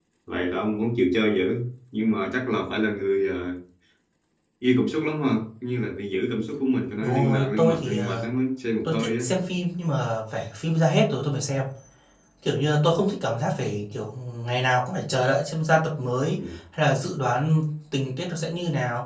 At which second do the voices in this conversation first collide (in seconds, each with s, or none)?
7.0 s